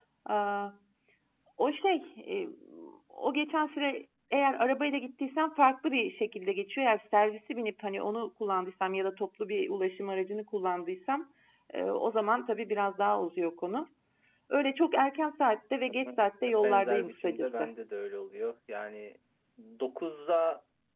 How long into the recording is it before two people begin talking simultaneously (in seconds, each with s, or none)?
15.9 s